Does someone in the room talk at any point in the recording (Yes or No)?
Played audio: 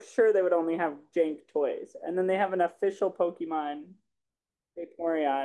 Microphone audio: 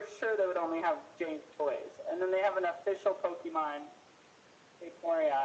No